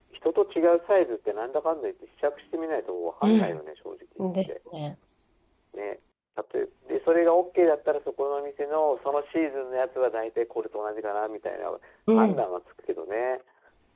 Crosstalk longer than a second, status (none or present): none